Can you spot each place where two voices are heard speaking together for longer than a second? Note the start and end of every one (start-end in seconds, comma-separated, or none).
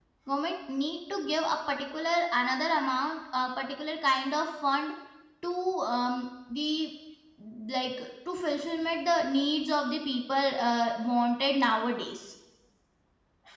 none